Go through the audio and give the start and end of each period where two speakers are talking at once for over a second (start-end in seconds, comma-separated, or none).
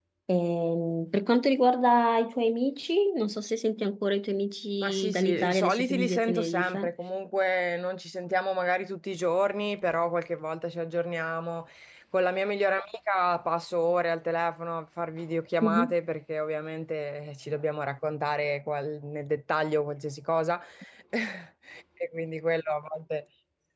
4.8-6.9